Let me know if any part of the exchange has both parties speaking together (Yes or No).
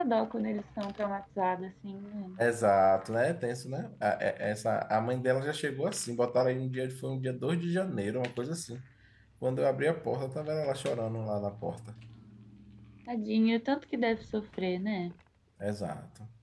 No